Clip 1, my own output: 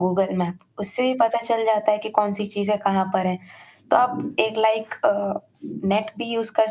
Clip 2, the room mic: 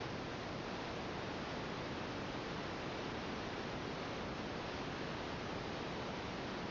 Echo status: none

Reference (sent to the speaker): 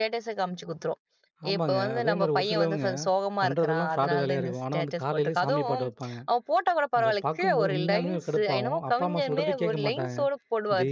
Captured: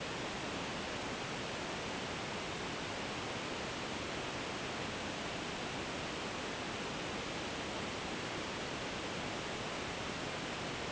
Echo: none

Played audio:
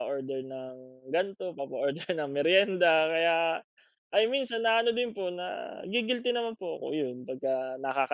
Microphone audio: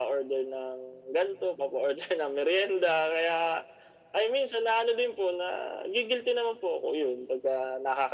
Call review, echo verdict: present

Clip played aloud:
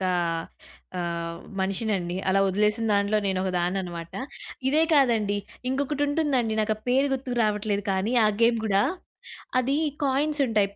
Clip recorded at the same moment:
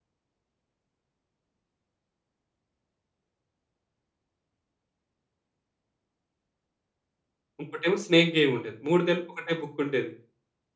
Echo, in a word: none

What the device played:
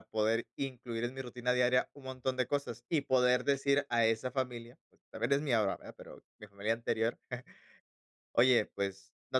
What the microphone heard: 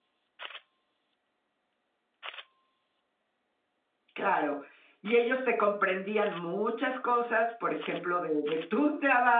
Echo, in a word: none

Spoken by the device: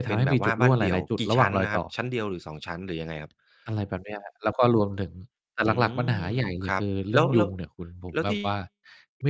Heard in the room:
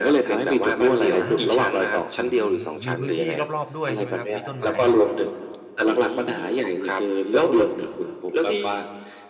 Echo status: present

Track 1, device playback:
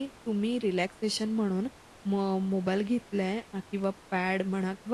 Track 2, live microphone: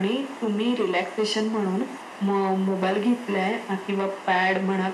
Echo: present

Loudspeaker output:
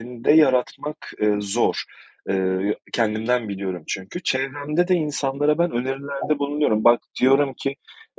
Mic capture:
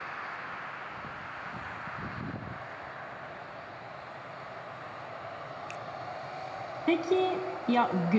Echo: none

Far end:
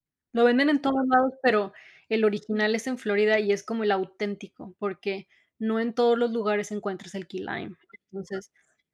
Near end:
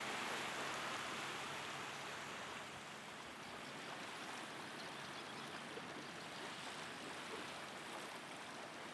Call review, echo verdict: none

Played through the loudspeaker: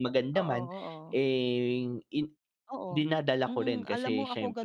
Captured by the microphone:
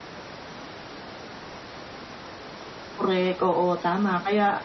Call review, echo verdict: none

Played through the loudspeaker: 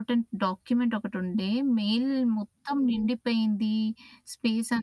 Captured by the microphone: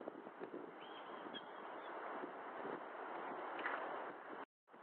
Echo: none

